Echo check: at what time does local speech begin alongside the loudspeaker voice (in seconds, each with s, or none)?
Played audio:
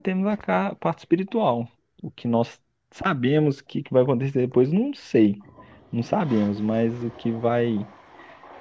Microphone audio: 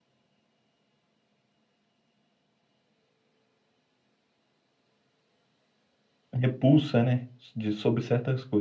6.3 s